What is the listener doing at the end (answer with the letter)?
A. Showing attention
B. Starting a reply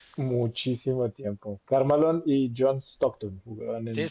B